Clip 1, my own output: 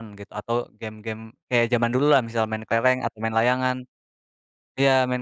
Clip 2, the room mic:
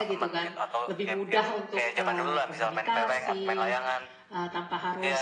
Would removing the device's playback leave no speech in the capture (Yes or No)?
No